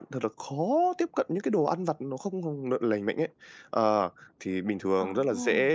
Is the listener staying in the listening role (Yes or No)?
Yes